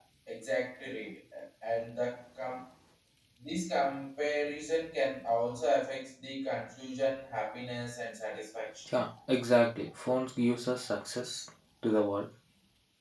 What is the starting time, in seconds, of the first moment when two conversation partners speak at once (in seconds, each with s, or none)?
none